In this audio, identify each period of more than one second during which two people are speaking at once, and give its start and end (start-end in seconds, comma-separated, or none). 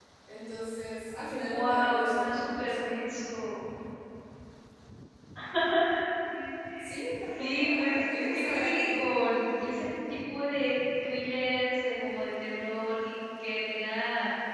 1.4-3.0, 7.3-9.0